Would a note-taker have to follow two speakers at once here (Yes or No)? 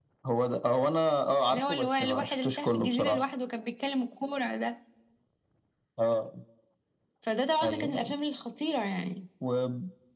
Yes